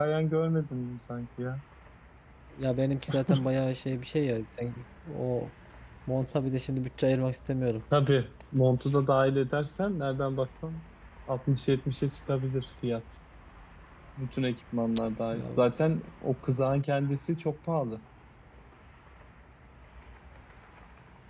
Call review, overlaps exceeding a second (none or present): none